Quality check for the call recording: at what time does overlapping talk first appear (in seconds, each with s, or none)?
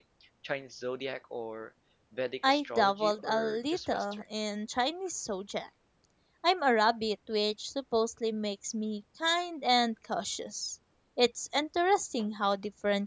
2.5 s